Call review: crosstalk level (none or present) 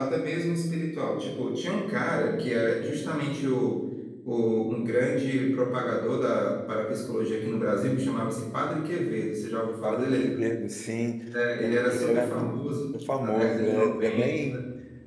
present